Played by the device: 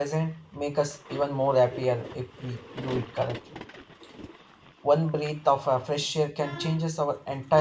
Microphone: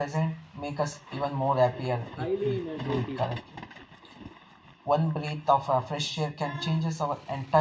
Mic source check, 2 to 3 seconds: both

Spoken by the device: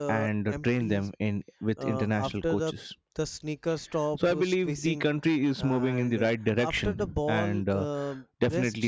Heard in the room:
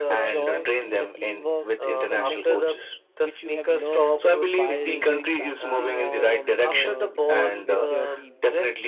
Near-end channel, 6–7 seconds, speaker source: both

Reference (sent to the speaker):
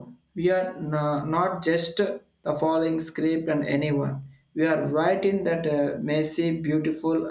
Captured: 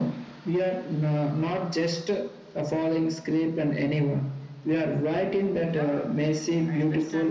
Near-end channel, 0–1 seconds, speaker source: echo only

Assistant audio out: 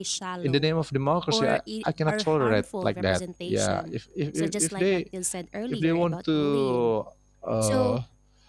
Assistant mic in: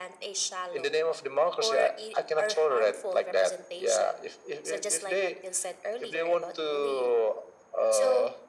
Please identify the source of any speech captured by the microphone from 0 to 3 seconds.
echo only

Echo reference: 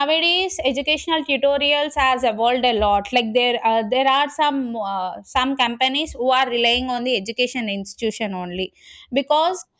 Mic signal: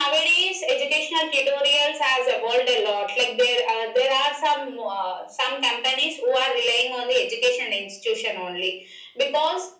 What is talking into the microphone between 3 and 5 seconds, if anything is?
echo only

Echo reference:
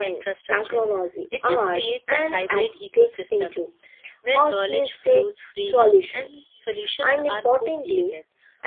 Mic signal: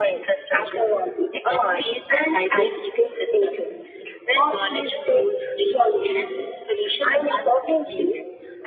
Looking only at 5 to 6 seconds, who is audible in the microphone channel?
echo only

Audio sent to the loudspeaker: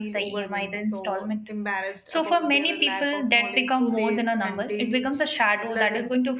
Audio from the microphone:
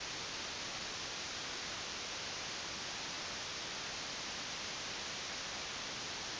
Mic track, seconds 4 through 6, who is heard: neither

